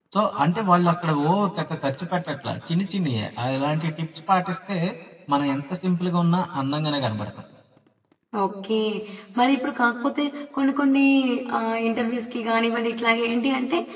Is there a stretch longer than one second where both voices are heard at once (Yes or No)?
No